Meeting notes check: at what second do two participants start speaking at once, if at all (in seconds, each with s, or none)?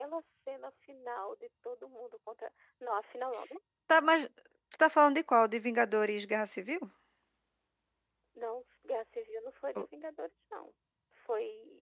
none